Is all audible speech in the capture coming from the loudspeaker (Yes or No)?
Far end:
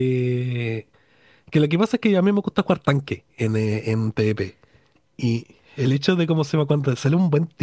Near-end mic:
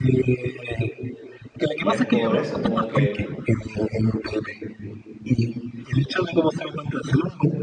No